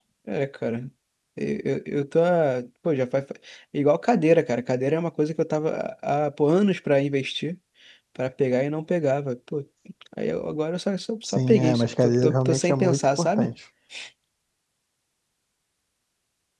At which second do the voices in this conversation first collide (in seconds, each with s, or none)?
11.2 s